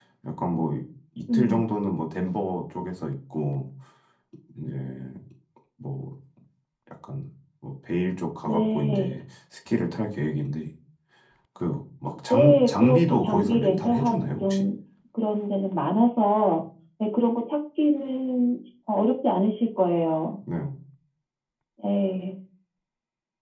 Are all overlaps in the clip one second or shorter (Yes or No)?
No